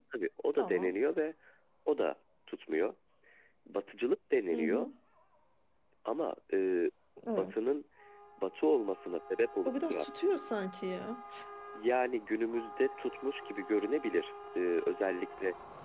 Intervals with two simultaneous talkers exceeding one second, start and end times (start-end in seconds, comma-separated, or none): none